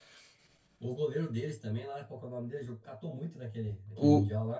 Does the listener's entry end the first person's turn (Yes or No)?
Yes